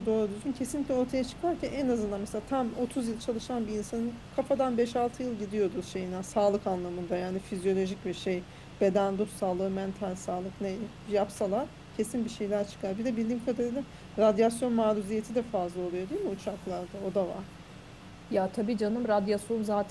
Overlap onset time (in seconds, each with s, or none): none